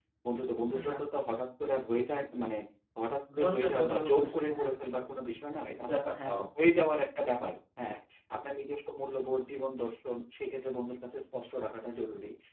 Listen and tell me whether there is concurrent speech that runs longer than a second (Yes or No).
Yes